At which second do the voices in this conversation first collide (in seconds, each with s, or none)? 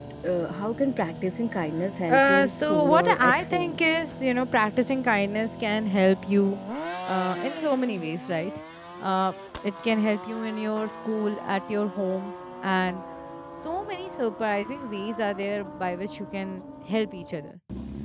2.1 s